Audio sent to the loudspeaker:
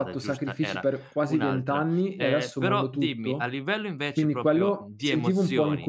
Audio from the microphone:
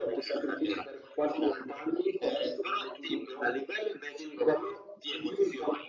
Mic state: echo only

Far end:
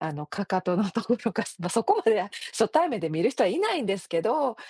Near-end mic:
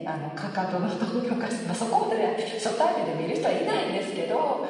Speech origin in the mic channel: echo only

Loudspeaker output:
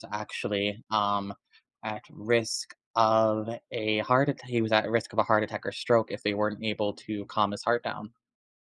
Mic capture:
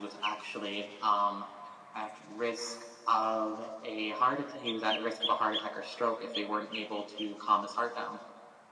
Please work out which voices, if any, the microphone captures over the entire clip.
echo only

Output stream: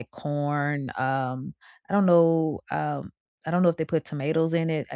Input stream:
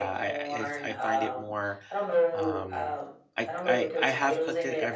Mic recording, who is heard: both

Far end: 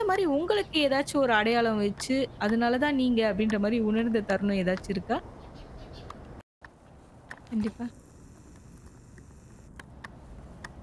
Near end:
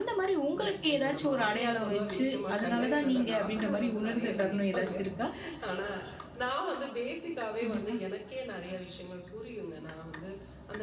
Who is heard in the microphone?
both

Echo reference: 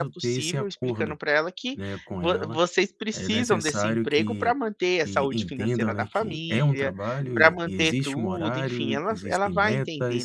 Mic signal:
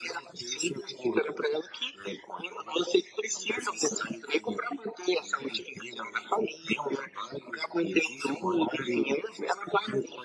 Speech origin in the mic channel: echo only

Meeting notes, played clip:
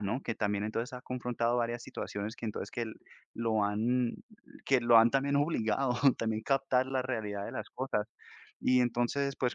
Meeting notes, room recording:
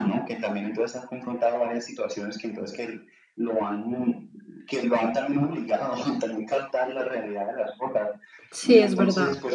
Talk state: both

